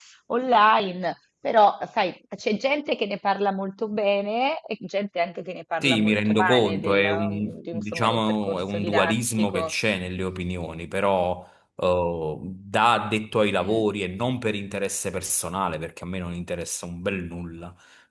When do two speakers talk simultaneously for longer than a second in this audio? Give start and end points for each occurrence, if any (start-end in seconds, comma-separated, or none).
5.8-9.7